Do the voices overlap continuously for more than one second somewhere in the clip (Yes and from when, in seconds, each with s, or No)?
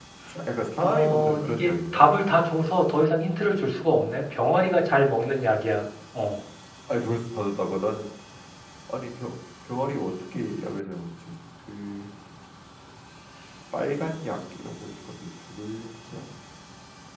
Yes, from 0.8 s